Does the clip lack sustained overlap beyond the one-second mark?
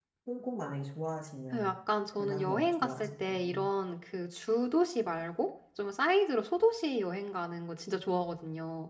No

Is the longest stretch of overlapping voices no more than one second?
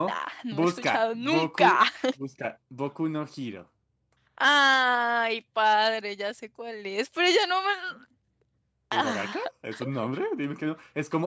No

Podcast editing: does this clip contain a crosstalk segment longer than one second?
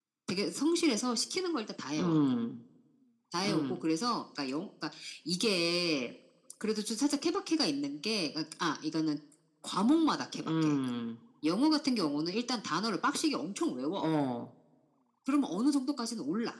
No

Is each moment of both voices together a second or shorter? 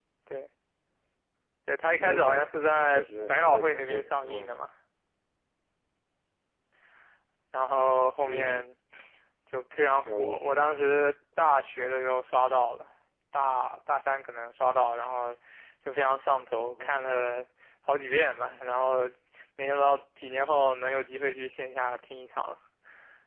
No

